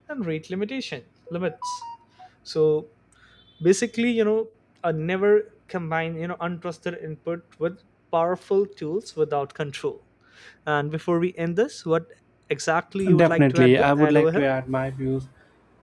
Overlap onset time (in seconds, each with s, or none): 13.2 s